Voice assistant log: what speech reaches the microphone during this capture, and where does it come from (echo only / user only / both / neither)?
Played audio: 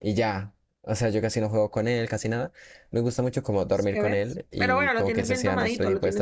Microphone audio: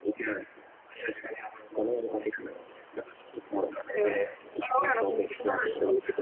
echo only